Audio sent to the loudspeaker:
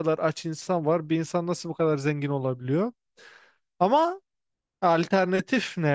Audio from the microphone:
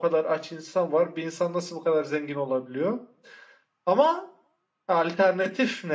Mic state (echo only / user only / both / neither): echo only